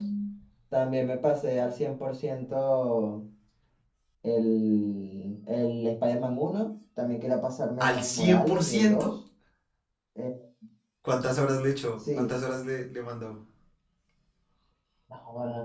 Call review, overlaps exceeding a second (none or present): present